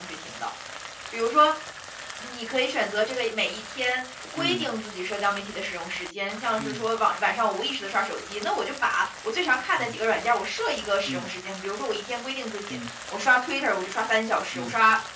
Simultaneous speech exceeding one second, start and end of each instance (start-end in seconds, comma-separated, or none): none